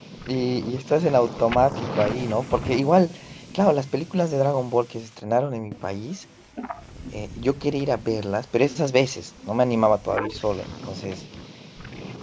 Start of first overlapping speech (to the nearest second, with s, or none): none